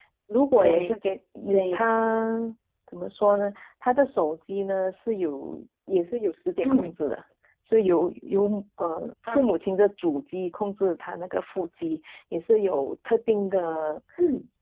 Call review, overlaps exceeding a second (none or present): none